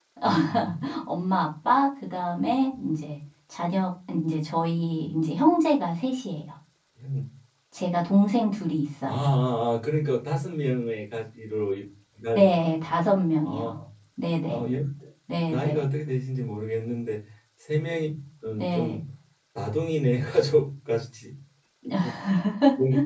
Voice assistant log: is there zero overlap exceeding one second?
Yes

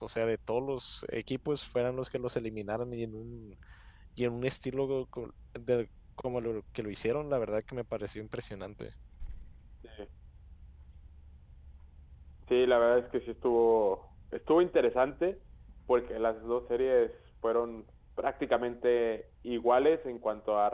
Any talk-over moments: No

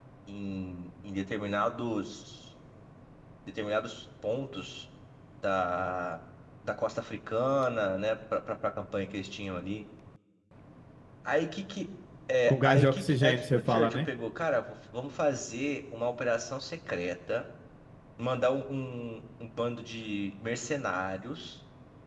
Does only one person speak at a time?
No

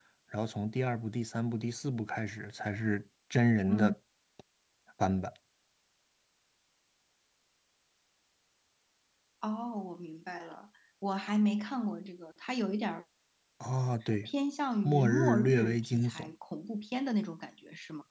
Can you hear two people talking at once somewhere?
Yes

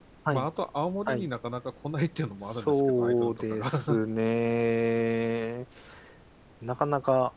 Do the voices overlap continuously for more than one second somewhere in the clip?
Yes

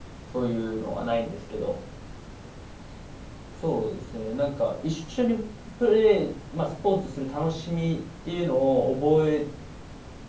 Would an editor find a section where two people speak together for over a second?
No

